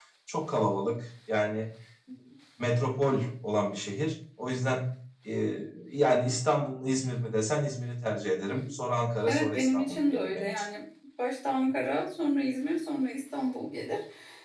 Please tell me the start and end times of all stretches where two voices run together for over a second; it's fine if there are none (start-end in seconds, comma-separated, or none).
9.3-10.6